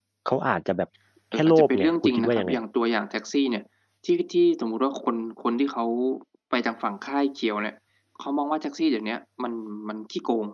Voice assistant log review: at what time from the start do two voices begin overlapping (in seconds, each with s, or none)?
1.3 s